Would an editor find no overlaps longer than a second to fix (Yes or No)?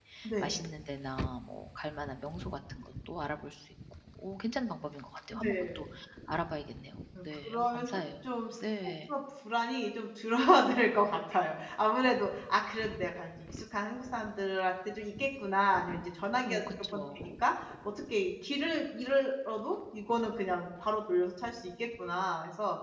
No